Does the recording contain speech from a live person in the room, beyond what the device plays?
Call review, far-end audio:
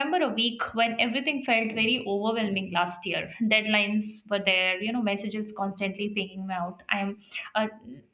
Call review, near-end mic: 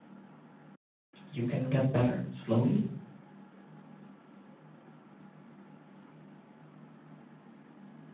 Yes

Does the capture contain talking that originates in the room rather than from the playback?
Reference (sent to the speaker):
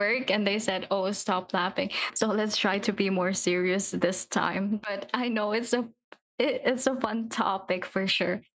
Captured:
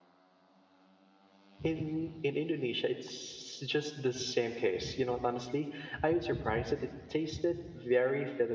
Yes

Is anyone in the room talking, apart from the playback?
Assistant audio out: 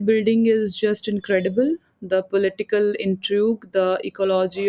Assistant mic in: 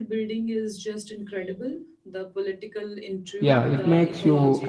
Yes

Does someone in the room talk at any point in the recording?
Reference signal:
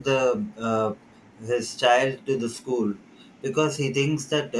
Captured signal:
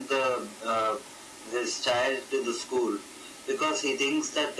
No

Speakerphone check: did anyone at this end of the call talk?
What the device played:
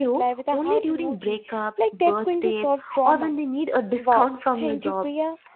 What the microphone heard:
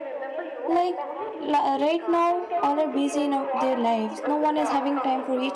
Yes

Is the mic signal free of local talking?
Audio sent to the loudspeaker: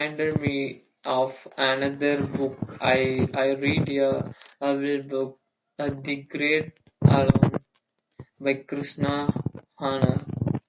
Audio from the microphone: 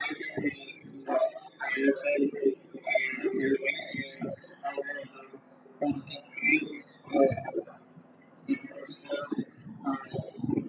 Yes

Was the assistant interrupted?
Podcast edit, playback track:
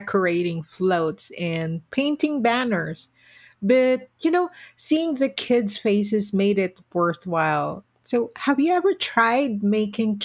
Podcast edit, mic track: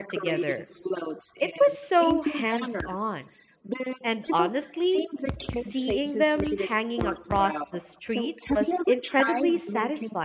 Yes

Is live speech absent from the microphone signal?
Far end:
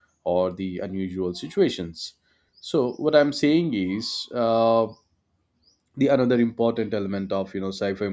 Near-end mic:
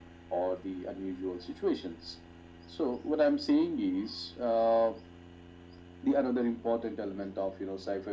Yes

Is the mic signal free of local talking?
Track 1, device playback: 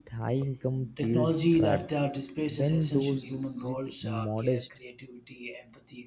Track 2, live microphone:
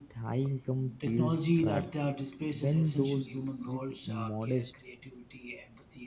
Yes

